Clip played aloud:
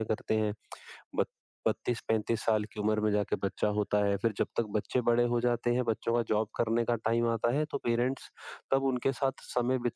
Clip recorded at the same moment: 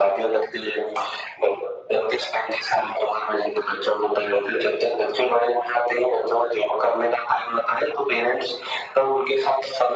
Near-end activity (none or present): none